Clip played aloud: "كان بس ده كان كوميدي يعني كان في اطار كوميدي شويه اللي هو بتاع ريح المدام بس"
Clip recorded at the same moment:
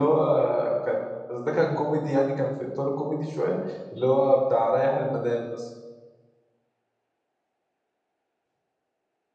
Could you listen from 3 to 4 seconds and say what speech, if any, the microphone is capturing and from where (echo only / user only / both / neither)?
echo only